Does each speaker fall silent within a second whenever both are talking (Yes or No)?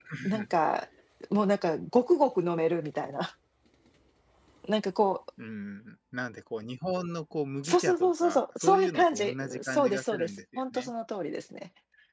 No